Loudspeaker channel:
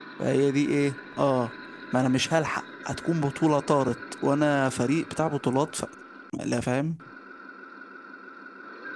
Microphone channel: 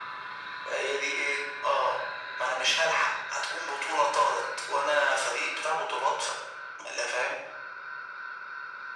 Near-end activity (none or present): none